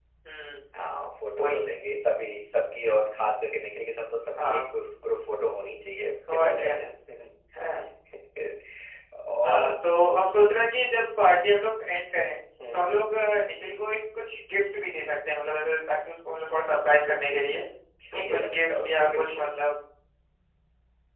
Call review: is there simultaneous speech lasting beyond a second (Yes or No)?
Yes